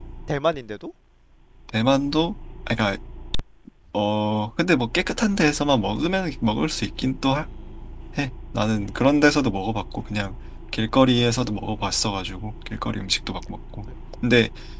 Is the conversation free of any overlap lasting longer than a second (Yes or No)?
Yes